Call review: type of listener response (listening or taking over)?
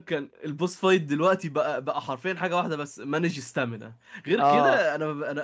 listening